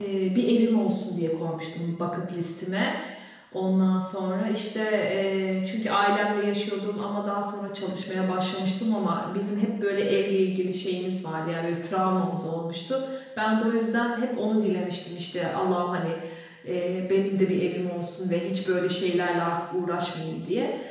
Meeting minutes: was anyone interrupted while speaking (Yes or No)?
No